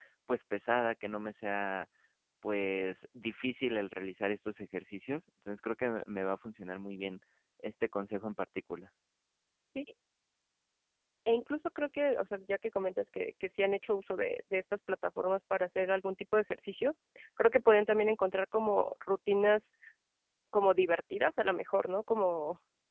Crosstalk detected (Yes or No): No